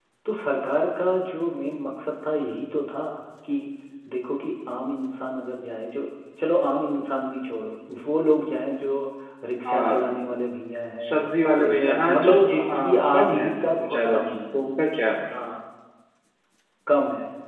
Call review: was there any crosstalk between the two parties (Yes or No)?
Yes